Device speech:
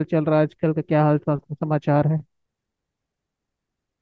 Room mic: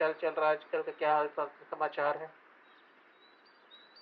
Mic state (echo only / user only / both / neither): echo only